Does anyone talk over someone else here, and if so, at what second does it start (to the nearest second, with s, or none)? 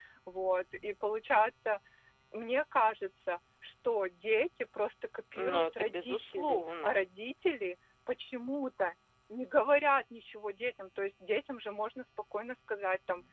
5 s